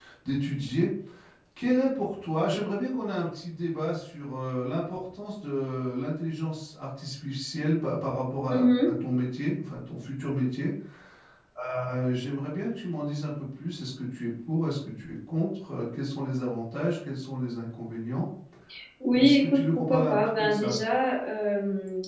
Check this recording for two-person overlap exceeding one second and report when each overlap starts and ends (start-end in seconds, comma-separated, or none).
19.2-20.7